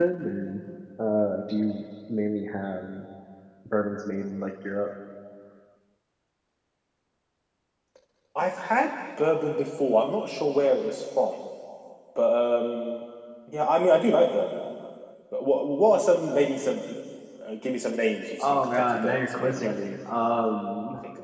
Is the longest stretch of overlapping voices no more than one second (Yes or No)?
No